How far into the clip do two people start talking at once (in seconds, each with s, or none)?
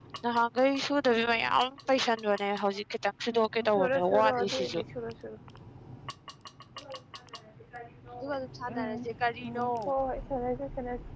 3.6 s